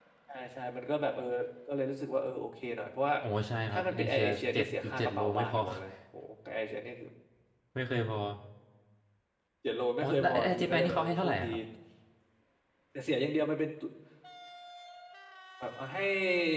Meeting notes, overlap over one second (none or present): present